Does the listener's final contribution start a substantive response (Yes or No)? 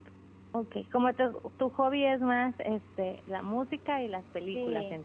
Yes